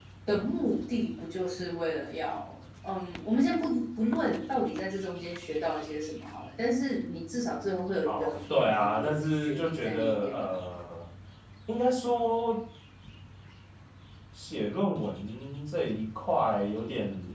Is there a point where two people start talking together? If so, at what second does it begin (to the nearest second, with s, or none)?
8 s